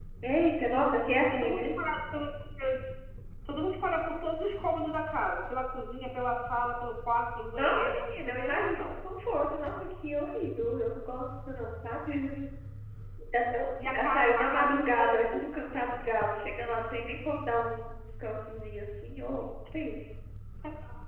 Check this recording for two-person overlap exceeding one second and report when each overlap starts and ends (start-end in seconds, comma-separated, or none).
7.6-8.9, 13.8-15.5